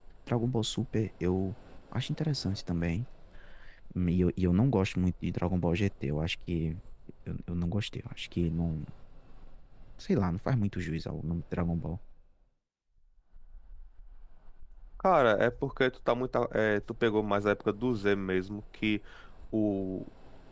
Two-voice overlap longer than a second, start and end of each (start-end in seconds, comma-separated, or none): none